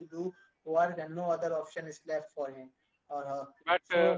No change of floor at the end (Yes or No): Yes